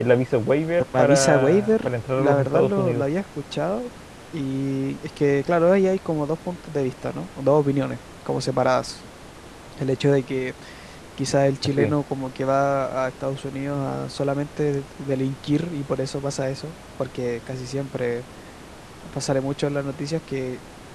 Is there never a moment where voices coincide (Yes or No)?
No